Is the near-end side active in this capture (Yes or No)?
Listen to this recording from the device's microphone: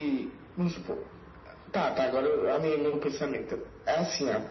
No